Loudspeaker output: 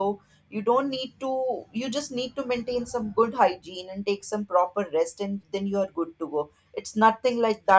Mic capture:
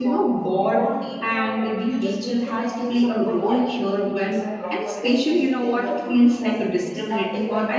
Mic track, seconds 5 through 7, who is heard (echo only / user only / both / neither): both